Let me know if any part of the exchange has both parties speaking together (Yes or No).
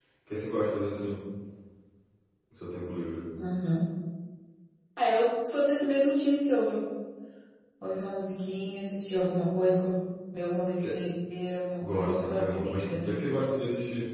Yes